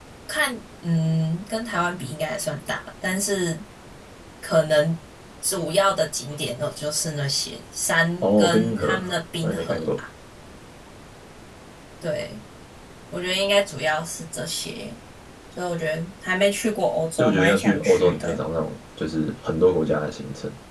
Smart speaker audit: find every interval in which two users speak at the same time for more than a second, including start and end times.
8.2-9.9, 17.1-18.4

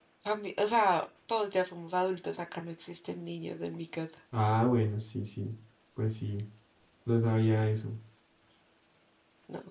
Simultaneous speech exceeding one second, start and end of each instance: none

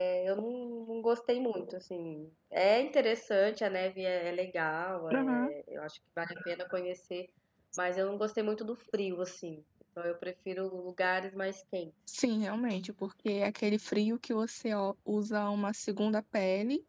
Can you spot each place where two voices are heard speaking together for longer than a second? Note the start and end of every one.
none

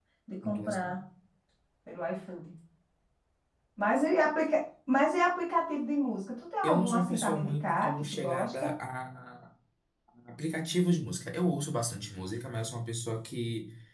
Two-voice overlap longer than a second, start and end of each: 6.6-8.7

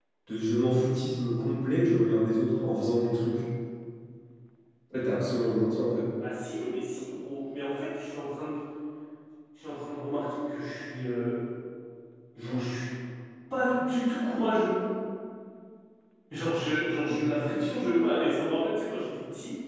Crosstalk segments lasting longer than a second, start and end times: none

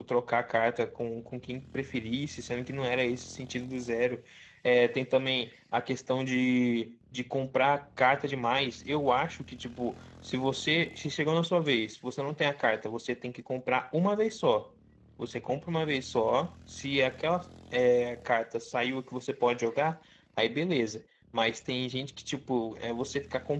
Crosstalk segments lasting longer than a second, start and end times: none

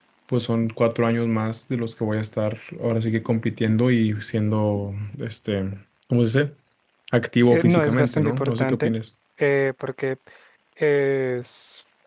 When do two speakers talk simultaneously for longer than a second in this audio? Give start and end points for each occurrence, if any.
7.4-8.9

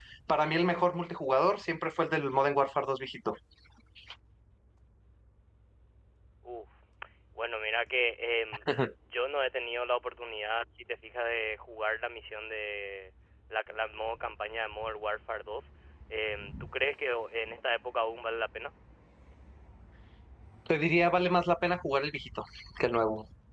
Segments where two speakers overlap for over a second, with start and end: none

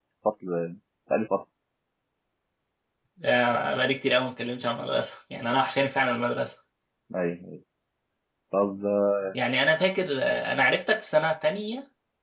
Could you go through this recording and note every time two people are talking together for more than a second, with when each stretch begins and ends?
none

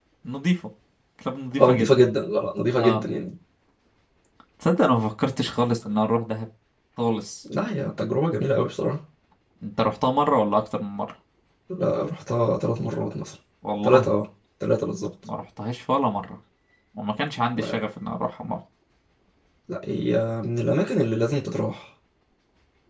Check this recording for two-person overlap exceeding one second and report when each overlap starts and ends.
none

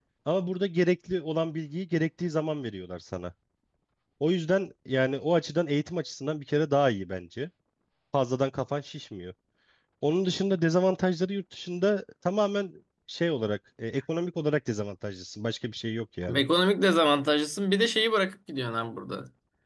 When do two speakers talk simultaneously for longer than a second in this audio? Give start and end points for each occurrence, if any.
none

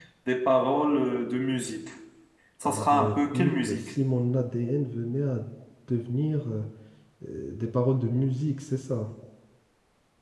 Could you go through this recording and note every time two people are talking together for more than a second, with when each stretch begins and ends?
2.6-3.9

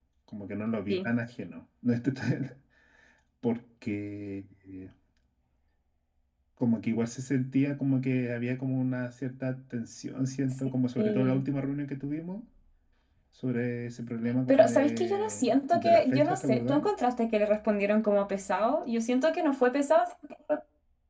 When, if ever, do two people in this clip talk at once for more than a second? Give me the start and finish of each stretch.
14.5-16.8

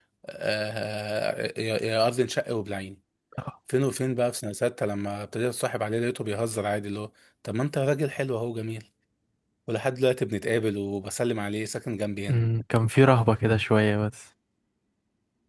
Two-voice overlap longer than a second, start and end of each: none

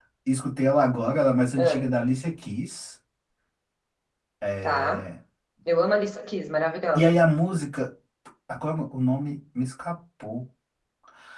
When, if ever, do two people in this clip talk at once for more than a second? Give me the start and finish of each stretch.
none

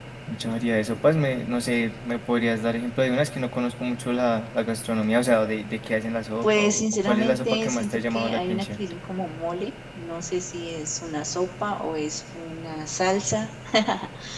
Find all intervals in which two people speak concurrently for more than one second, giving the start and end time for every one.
6.4-8.8

